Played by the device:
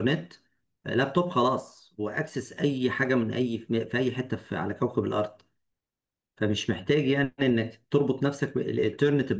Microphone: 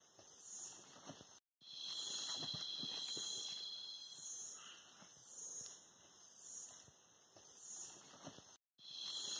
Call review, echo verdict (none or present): none